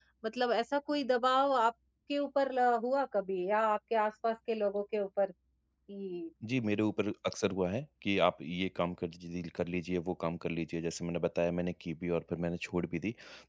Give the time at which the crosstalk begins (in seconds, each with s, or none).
none